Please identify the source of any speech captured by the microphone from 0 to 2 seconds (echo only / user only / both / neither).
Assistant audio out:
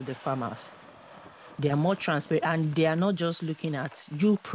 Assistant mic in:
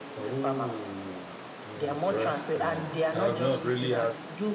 both